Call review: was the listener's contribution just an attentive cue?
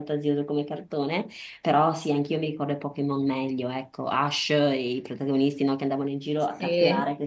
Yes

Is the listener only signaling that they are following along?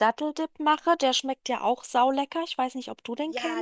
No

